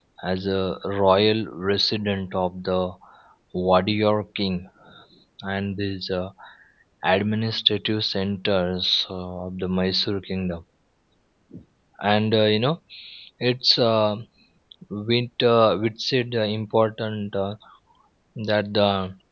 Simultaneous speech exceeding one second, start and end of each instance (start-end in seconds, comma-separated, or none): none